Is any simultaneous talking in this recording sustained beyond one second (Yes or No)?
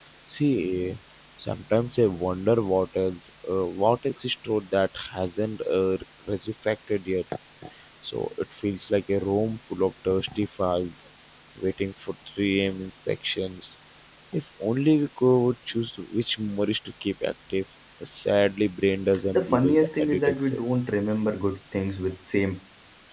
Yes